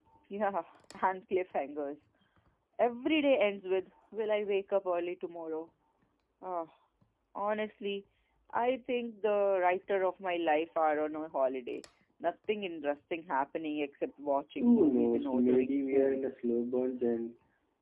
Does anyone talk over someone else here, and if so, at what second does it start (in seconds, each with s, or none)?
14.6 s